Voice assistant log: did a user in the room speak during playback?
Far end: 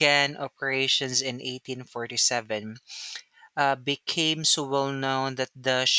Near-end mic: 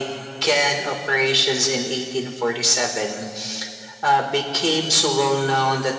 No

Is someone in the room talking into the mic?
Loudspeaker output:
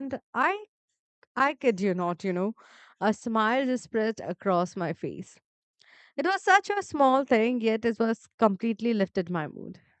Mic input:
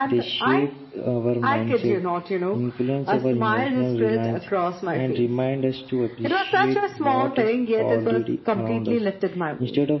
Yes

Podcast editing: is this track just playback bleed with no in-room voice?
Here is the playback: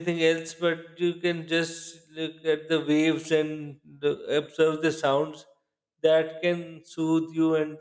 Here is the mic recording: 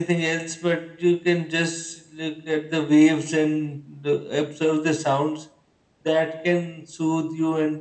Yes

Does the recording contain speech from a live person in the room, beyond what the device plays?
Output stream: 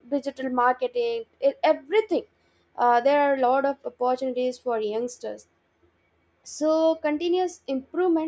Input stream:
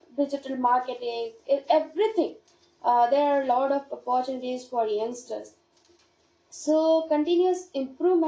No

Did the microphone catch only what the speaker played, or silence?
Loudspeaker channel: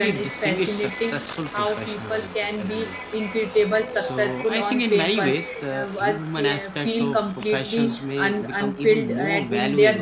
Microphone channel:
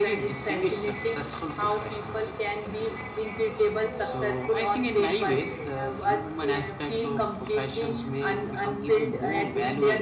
Yes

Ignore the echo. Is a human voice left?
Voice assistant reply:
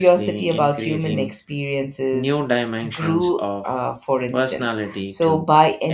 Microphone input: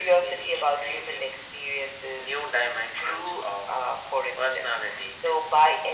No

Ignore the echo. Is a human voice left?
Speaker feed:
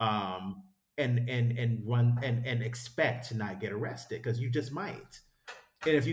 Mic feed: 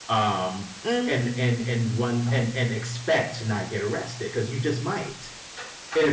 Yes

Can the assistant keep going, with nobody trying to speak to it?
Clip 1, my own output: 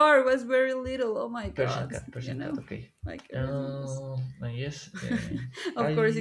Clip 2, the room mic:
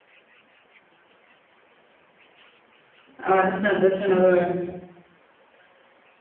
No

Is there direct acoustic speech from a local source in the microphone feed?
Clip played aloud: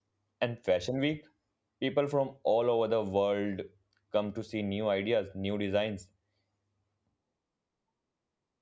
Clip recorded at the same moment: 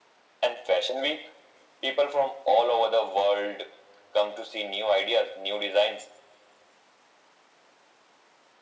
No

